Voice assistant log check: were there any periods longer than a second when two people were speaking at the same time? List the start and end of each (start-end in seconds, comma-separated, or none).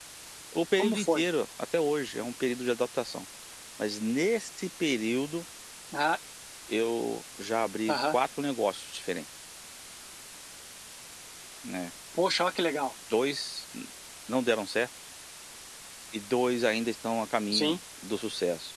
none